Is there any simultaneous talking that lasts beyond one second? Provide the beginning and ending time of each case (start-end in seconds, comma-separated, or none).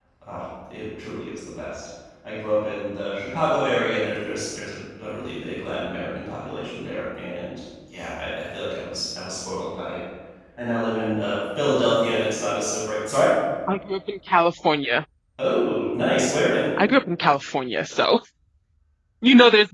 none